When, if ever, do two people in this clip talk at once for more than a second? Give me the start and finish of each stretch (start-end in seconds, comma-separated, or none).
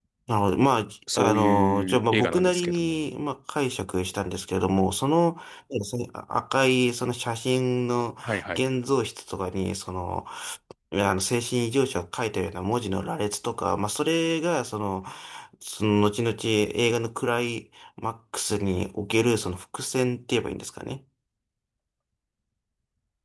1.1-3.0